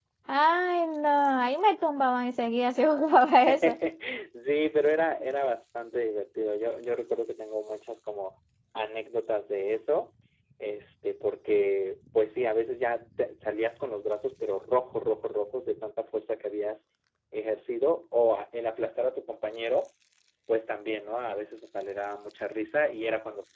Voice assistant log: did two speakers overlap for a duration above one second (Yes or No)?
No